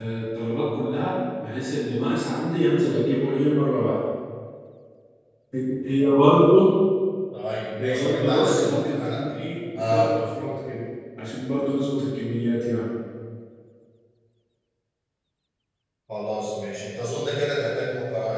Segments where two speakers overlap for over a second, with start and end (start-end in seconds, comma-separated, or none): 7.8-9.2